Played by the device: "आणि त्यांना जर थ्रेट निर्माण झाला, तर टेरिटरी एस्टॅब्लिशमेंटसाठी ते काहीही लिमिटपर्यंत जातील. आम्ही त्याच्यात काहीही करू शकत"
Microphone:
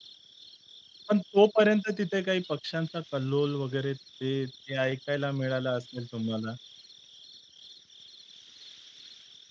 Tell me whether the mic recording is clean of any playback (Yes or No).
Yes